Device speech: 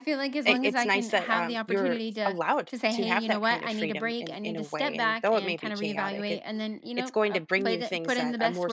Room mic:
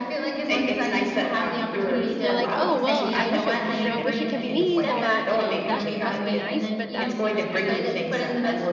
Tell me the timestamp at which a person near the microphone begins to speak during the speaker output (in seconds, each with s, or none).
2.2 s